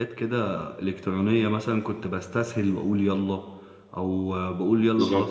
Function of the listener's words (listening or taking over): listening